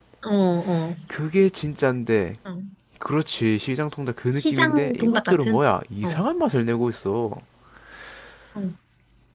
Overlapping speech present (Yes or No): Yes